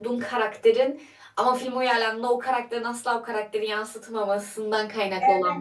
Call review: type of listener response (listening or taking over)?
taking over